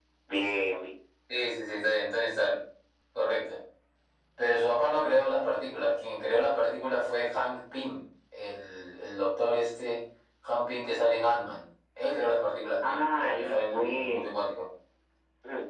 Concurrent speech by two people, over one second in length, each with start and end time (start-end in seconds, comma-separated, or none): 12.8-14.3